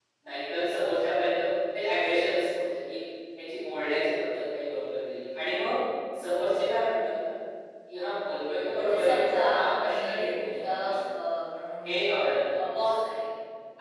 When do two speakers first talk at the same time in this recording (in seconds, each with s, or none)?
8.8 s